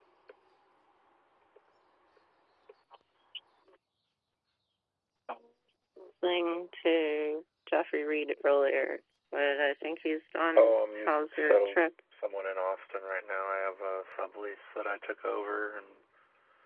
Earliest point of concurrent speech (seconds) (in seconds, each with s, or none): 10.4 s